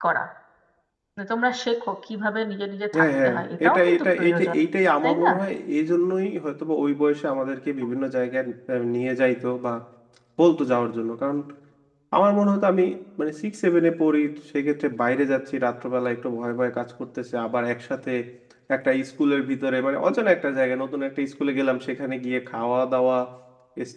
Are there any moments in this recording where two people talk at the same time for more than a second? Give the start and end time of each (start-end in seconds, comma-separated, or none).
2.9-4.6